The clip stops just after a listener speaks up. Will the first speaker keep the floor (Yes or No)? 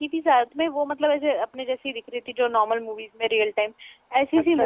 No